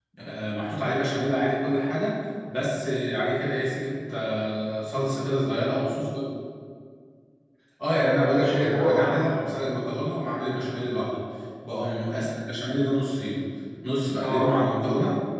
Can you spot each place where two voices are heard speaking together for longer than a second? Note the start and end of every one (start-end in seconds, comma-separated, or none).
7.9-9.2